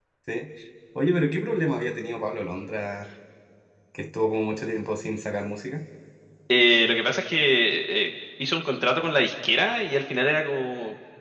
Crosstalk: none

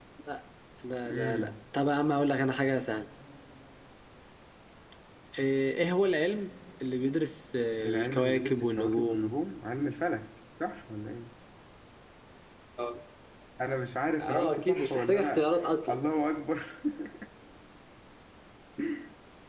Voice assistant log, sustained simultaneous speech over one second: present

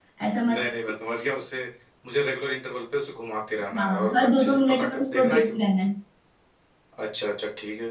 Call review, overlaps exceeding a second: present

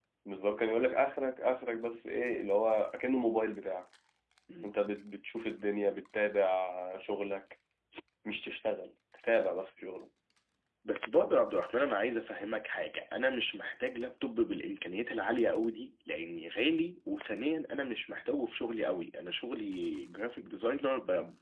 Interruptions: none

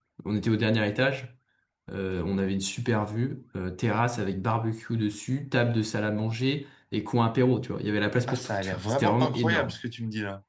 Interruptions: present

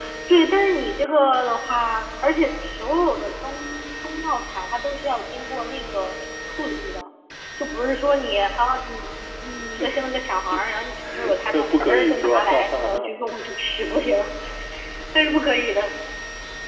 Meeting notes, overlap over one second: present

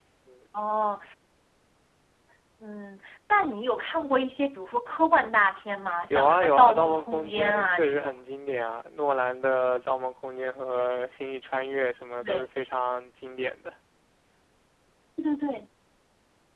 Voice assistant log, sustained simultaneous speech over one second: present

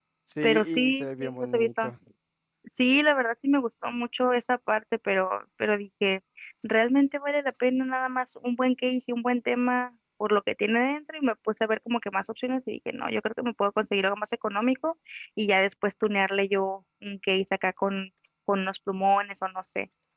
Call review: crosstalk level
present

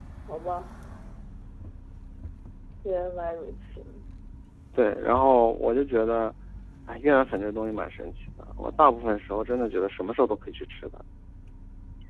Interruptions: none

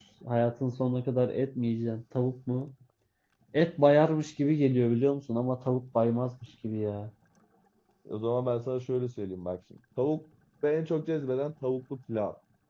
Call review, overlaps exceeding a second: none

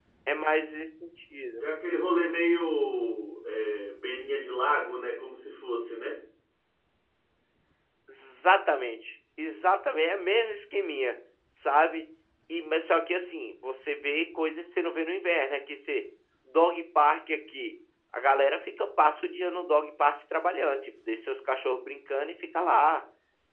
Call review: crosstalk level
none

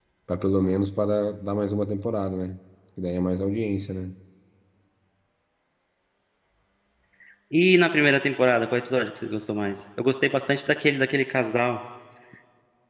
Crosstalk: none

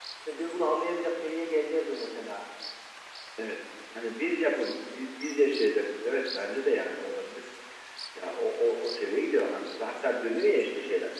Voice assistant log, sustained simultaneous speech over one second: none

